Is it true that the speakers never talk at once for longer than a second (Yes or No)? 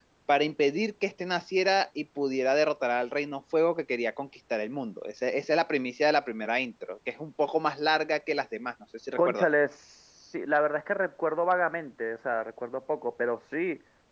Yes